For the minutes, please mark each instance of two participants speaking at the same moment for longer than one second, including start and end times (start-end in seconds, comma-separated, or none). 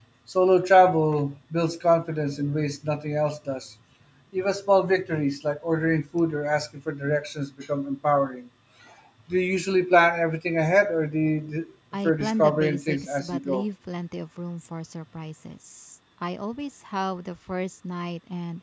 12.0-13.6